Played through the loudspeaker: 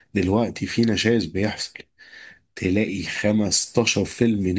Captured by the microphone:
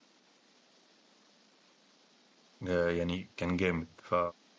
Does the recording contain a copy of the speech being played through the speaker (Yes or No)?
No